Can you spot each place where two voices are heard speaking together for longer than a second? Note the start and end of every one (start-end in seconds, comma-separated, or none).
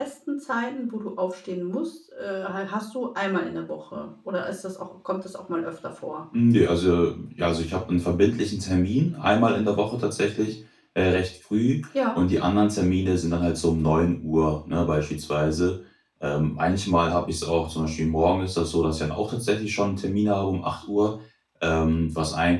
none